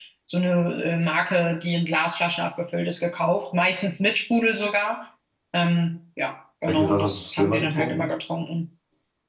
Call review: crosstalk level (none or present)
present